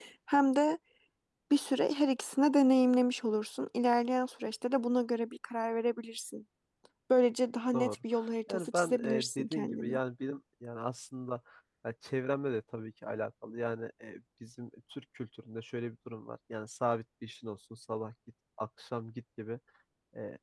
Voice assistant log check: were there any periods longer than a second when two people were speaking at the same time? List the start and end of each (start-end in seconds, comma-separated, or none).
8.5-10.0